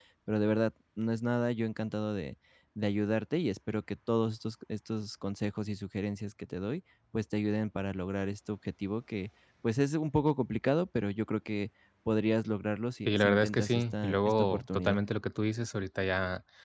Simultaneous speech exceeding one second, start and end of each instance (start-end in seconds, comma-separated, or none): 13.1-15.0